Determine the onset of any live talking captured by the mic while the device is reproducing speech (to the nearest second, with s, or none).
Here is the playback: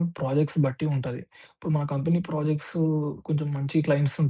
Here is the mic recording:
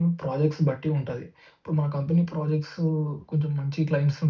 none